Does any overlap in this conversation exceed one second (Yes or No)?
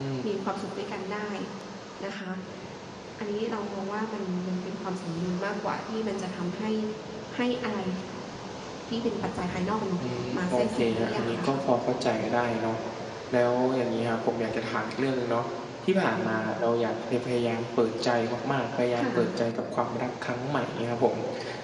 Yes